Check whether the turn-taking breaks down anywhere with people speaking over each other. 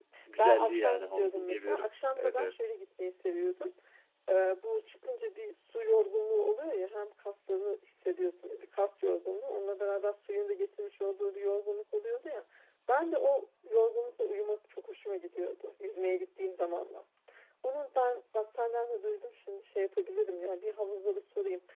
Yes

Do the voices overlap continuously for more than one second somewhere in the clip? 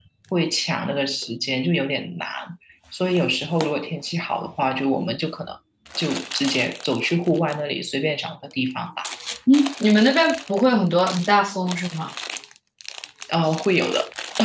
No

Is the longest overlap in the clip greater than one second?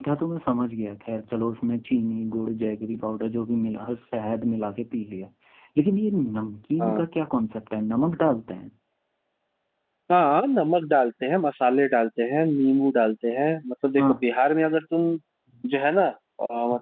No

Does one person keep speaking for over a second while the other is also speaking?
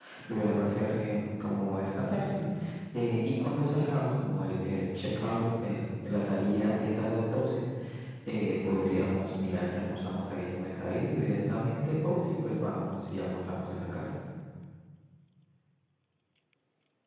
No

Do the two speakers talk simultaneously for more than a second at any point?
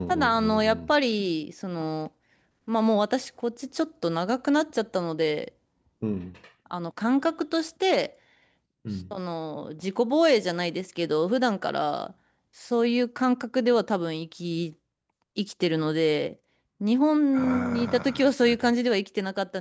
Yes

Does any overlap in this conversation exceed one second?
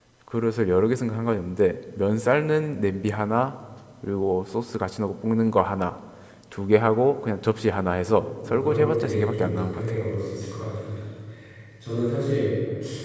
Yes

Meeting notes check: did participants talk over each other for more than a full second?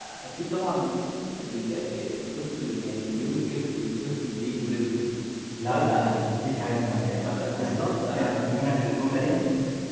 Yes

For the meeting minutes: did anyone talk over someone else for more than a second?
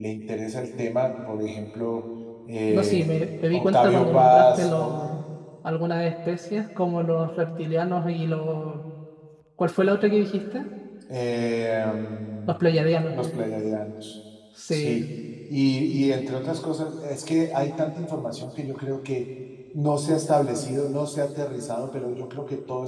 Yes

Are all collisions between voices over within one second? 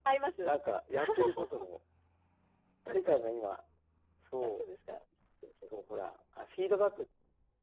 Yes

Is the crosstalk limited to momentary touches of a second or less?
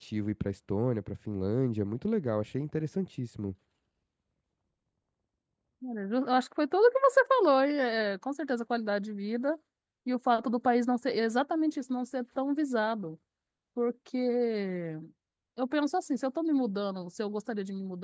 Yes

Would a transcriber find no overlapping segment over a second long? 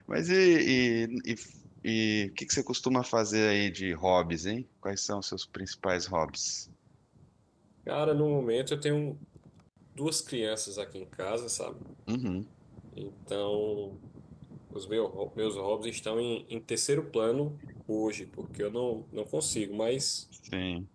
Yes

